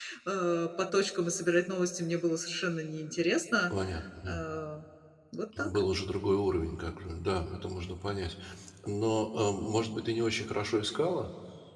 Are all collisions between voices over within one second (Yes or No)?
Yes